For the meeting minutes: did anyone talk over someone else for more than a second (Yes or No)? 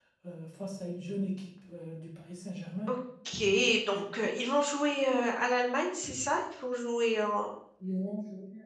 No